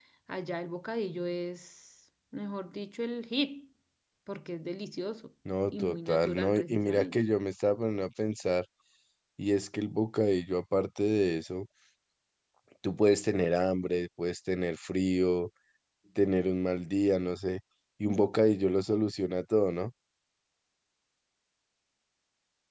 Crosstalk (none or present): present